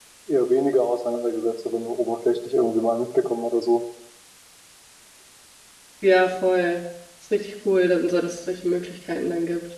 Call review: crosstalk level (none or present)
none